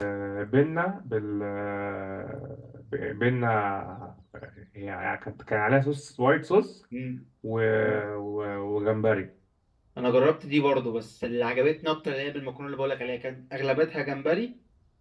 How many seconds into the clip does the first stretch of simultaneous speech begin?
none

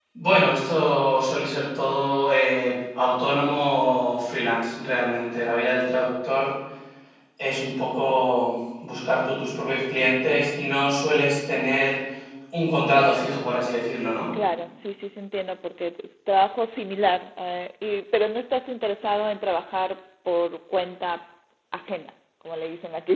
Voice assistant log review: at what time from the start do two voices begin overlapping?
none

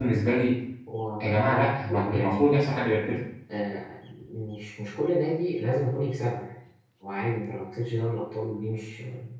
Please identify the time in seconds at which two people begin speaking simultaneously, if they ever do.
1.2 s

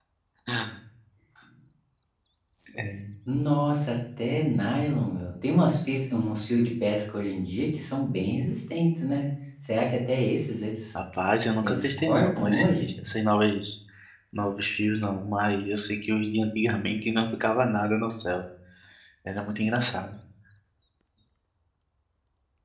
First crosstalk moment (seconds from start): 11.6 s

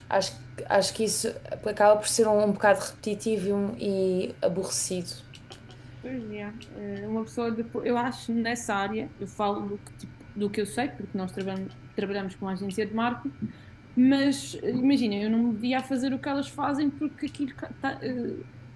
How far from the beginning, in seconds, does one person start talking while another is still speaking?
none

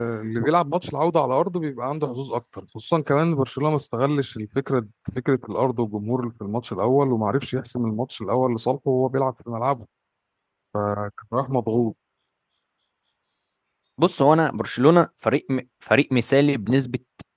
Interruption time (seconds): none

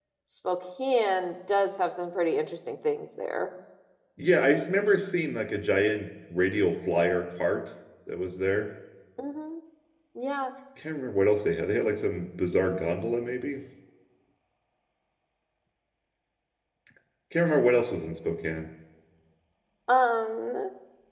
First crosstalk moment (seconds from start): none

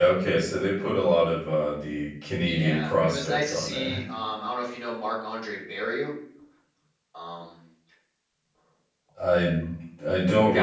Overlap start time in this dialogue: 2.5 s

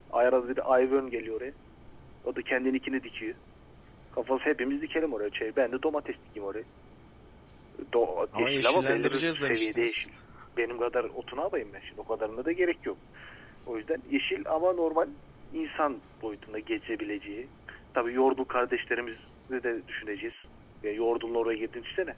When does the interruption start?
8.3 s

